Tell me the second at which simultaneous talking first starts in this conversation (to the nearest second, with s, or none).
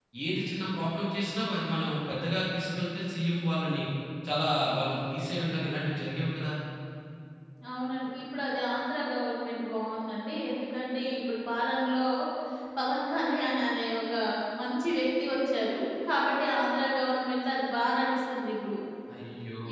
none